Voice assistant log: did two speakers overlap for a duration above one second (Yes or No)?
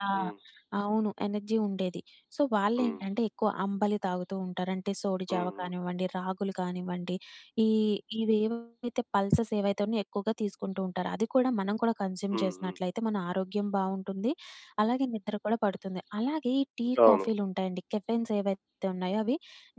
No